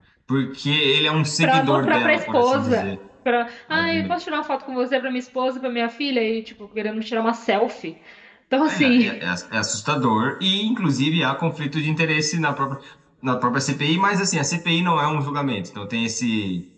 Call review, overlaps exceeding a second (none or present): present